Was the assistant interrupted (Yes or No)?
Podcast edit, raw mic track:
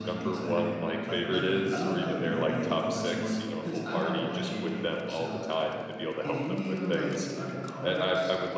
Yes